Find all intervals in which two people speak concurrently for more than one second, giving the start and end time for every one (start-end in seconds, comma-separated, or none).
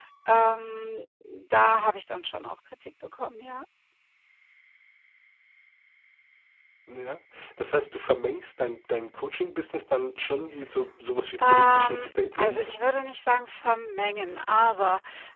11.4-12.7